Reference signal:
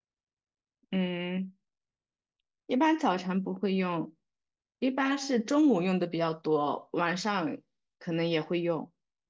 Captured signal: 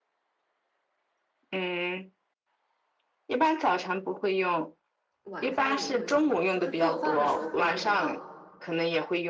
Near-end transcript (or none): 晚上也会用，中午就是做饭的时候会用到，